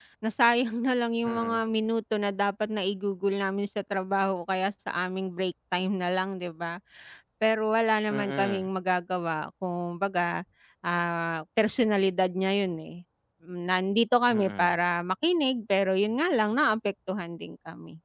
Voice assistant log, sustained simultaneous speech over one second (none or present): none